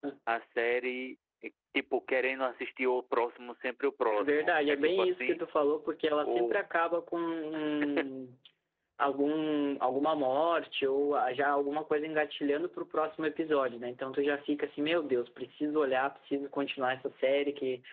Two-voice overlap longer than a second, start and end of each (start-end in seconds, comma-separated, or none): 4.1-5.4